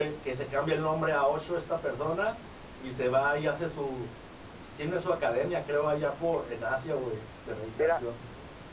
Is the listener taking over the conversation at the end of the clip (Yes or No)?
Yes